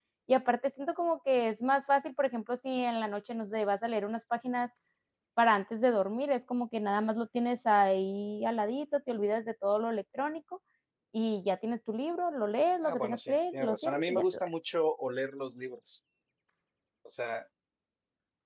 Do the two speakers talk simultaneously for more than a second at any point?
Yes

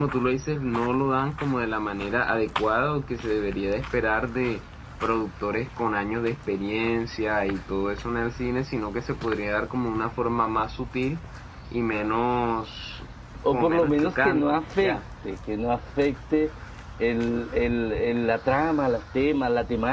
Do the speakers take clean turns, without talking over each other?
No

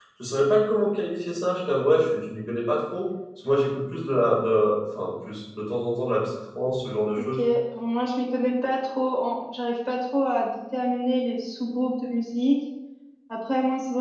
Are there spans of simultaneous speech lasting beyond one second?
No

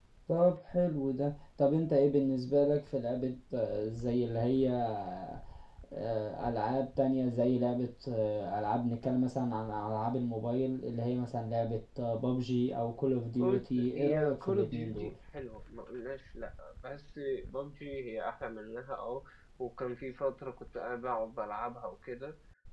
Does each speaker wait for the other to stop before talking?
No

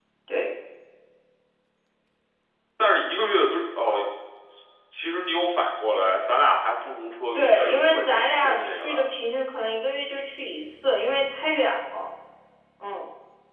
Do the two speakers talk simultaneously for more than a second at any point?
Yes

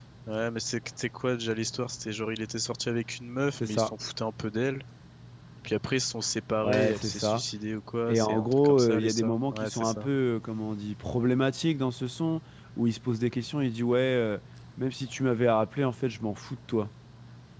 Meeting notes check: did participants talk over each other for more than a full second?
Yes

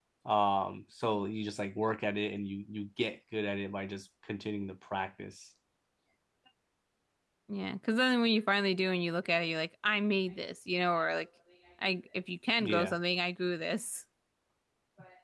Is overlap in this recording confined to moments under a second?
Yes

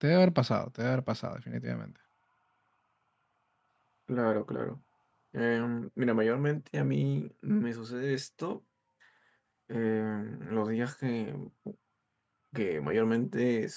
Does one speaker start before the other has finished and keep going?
No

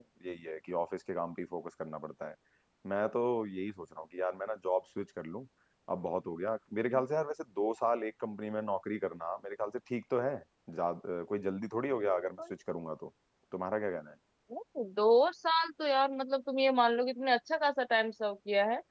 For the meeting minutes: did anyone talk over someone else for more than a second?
No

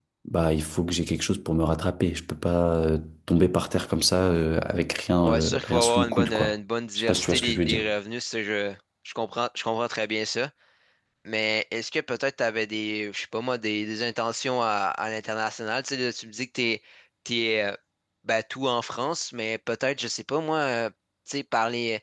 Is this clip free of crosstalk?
No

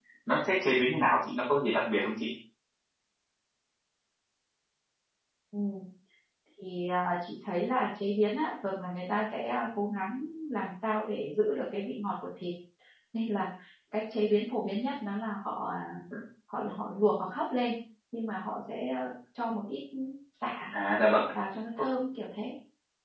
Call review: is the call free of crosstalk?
Yes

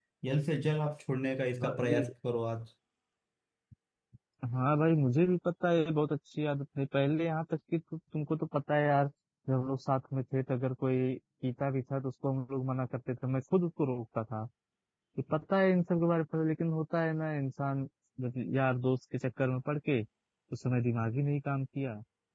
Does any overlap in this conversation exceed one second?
No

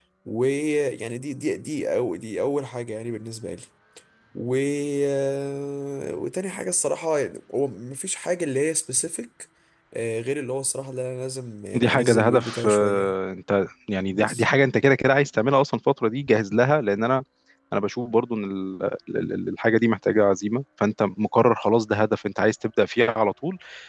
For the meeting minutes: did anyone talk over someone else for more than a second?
Yes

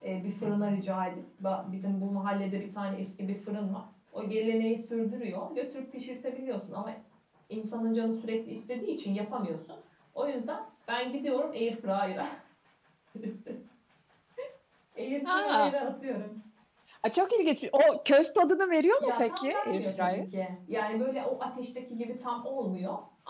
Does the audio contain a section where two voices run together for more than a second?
Yes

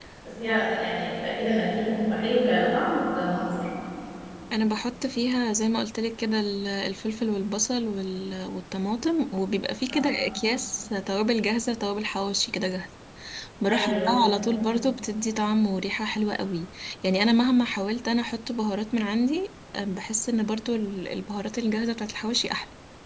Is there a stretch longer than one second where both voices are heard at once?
No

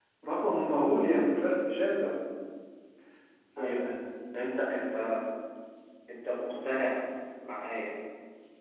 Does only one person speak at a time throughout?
Yes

